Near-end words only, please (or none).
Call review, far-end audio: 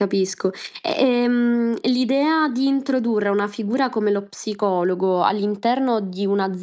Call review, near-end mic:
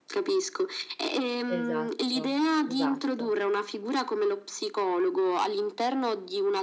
Esatto, esatto.